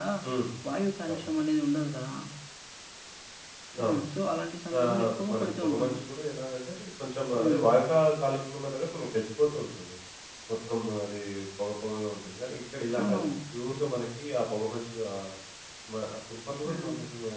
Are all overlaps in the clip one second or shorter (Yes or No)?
No